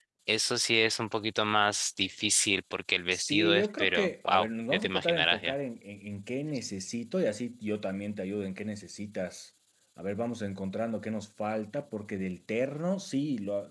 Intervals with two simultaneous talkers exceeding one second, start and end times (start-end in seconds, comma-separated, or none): 3.1-5.5